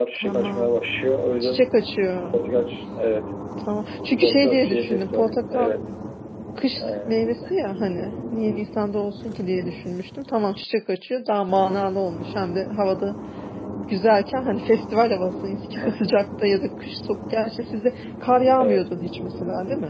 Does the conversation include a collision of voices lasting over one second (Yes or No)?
Yes